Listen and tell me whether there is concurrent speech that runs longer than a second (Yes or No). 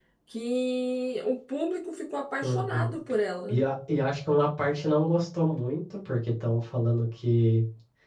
No